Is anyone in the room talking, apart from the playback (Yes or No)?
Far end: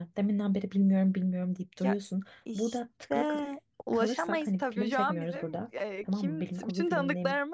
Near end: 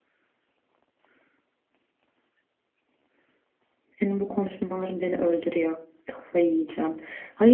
Yes